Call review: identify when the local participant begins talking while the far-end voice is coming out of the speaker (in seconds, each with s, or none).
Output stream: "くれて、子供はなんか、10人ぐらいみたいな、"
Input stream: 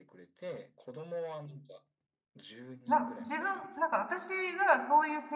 2.9 s